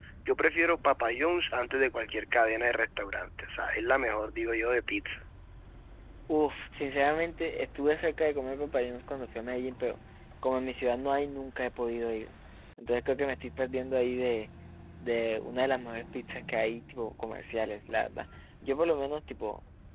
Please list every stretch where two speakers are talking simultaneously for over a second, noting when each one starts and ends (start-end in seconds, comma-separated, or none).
none